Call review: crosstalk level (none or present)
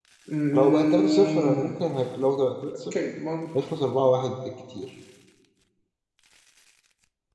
present